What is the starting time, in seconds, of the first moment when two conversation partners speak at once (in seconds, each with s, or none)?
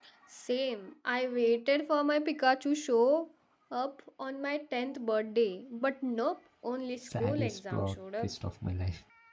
7.0 s